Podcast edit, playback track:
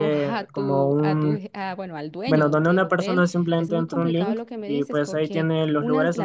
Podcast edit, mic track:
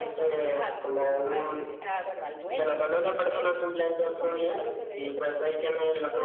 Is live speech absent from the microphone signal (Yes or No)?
Yes